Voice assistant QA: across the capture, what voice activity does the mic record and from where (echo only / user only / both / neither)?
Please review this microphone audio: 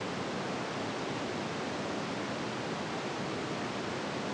neither